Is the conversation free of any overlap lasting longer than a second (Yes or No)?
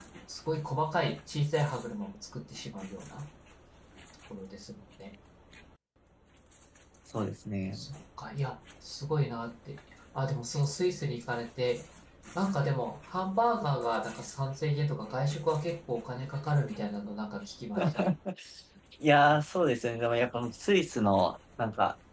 Yes